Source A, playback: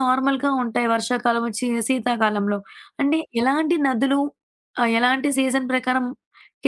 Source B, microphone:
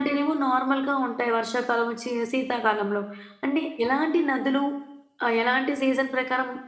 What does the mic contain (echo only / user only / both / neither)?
echo only